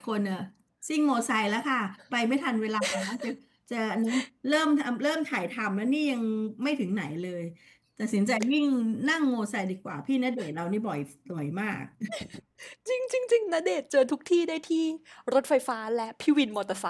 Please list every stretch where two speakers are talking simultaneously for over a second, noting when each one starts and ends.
none

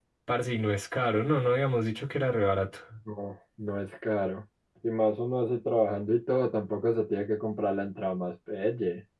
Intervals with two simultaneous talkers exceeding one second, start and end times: none

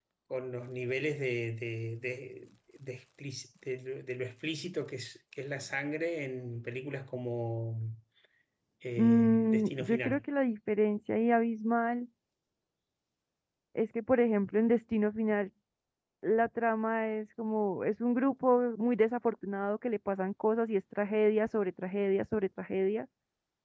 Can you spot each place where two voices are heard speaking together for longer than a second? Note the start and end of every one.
9.0-10.2

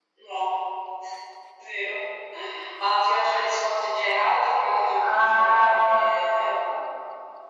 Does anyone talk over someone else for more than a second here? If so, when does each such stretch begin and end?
5.0-6.4

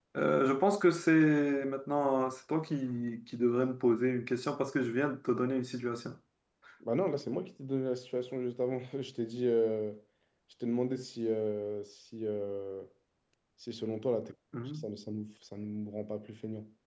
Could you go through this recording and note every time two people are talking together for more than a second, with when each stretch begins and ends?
none

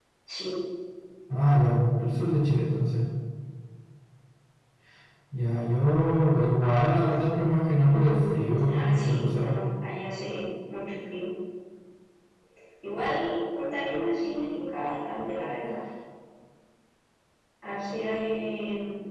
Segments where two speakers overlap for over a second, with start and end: 7.8-9.4

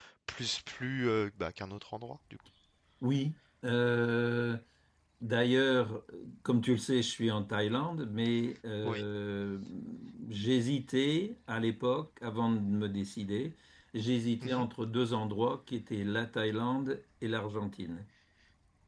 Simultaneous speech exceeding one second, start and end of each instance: none

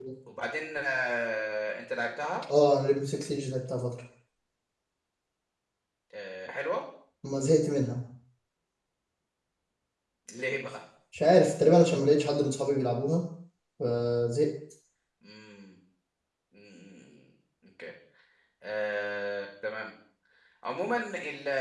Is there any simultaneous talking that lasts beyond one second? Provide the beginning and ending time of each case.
none

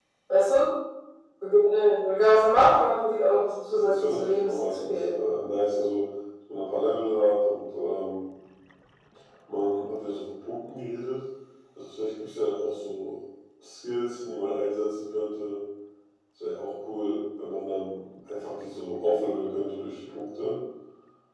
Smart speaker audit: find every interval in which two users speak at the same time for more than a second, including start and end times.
3.7-5.1

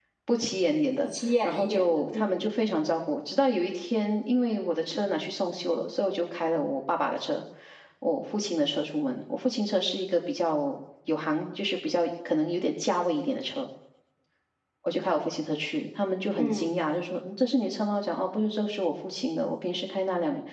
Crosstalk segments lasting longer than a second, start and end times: 1.0-2.5

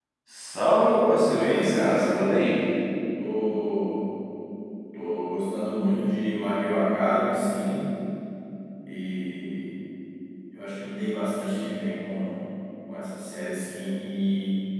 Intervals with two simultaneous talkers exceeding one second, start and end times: 1.3-2.5

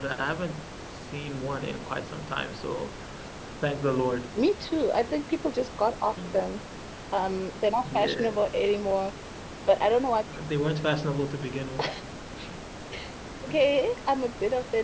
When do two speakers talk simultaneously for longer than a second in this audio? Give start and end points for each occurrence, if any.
none

